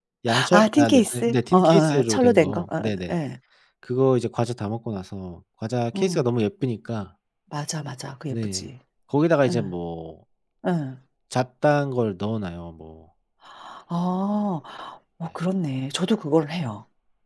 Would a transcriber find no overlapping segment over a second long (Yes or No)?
No